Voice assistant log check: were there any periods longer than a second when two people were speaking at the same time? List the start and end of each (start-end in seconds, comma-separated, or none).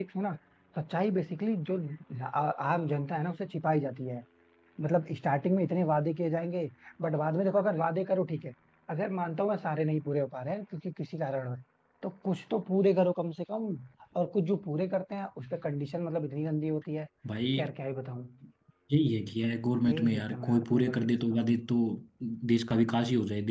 19.9-21.4